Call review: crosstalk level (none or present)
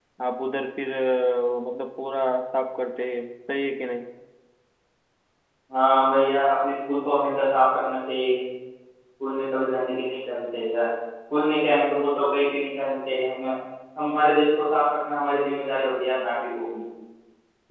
none